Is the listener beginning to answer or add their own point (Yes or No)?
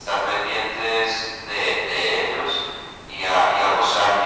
No